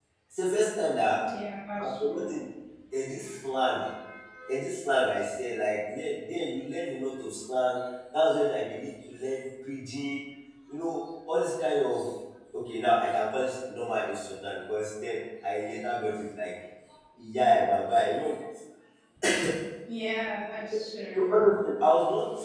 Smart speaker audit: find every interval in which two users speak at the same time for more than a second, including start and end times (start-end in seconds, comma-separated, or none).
none